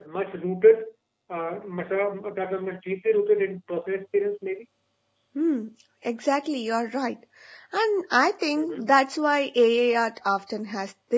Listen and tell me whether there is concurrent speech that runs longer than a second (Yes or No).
No